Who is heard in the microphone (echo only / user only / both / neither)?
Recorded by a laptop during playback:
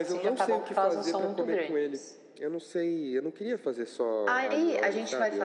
echo only